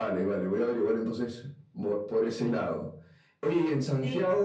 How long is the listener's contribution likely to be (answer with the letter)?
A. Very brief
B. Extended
A